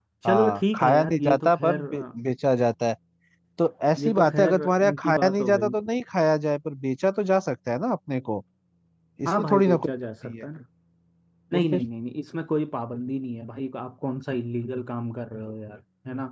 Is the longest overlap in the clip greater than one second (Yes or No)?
Yes